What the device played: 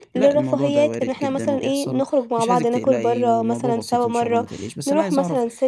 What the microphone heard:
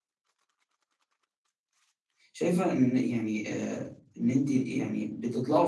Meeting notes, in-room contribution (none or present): present